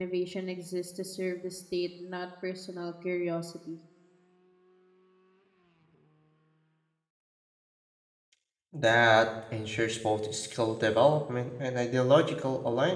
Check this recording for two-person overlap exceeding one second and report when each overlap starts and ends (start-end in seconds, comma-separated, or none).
none